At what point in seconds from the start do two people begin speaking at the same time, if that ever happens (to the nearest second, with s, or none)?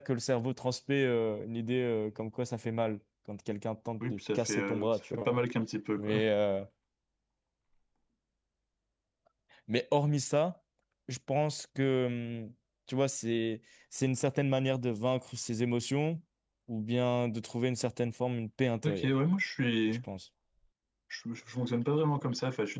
4 s